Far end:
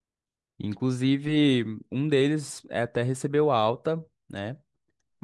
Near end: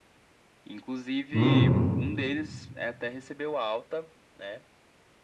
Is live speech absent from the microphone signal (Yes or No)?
No